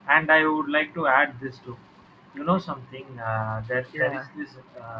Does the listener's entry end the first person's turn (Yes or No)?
No